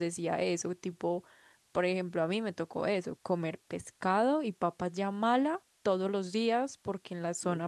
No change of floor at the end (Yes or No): Yes